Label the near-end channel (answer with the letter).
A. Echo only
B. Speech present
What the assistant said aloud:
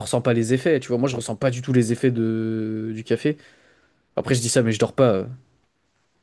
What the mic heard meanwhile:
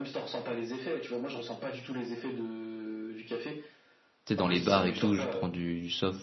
B